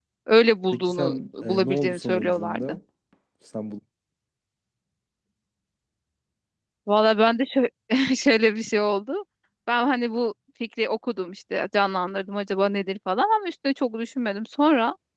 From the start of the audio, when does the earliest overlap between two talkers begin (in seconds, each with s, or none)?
0.7 s